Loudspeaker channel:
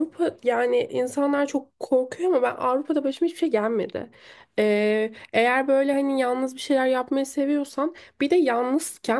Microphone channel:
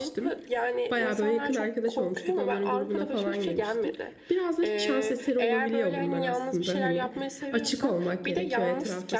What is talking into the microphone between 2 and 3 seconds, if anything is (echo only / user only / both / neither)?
both